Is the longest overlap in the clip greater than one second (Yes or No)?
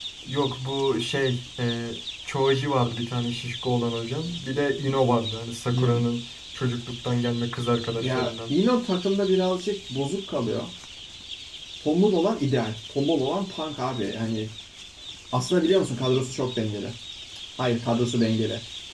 No